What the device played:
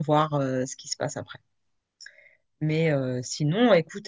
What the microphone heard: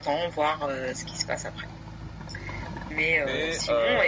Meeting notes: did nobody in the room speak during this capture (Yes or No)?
No